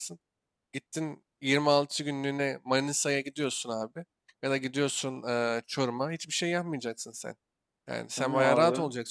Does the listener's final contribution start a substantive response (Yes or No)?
No